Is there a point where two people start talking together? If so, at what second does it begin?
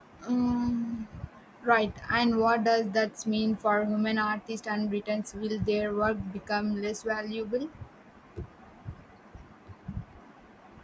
none

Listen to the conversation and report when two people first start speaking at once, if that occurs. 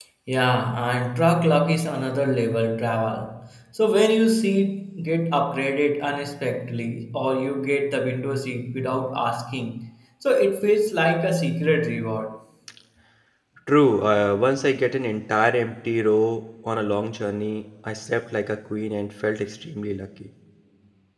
none

